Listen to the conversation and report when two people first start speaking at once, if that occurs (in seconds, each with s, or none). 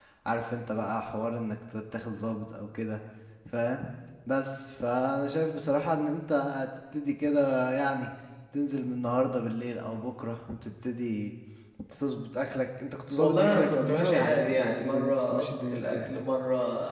13.2 s